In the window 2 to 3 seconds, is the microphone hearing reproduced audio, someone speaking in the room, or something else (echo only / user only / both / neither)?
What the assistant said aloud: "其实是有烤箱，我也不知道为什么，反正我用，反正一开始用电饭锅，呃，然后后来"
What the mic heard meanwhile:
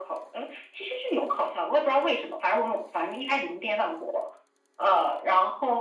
echo only